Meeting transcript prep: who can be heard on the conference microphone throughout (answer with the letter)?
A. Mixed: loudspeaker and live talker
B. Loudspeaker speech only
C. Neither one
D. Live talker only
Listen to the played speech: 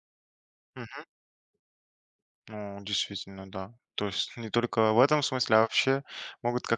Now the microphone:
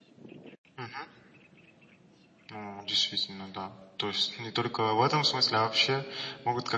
B